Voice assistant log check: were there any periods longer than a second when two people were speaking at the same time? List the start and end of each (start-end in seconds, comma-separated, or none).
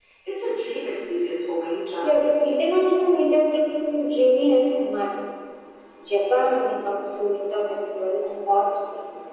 none